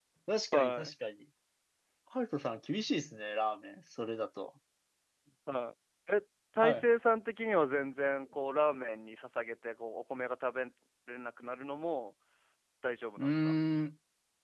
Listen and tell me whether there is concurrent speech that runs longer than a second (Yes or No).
No